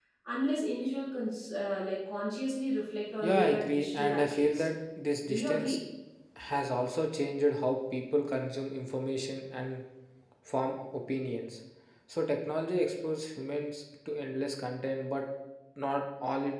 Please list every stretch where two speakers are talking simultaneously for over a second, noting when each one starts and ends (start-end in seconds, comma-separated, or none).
3.2-4.7